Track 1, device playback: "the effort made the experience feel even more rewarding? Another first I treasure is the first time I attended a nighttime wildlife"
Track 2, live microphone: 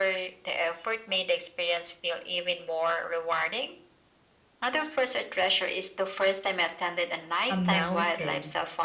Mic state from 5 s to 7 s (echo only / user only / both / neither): echo only